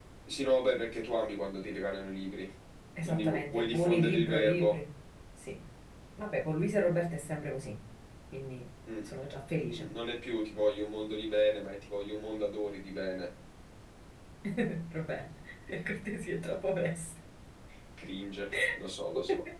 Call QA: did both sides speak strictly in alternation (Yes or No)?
No